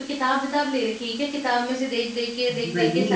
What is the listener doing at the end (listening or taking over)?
taking over